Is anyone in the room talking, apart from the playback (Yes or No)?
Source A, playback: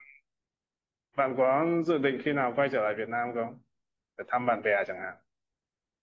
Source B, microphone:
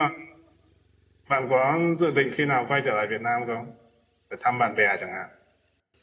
No